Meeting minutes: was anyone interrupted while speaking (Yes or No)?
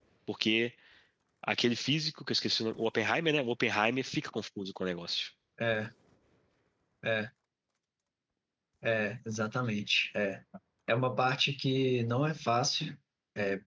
No